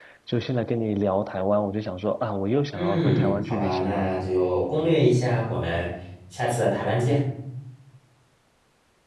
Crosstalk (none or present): present